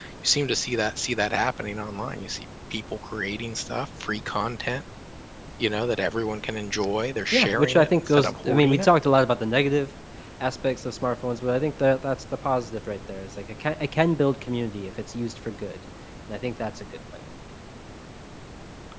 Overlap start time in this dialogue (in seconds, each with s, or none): 7.3 s